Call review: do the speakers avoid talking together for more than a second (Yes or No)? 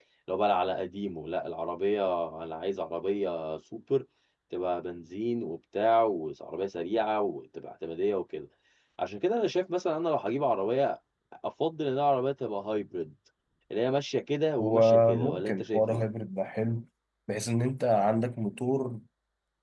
No